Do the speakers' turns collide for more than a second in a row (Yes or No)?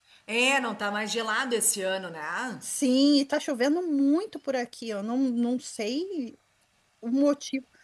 No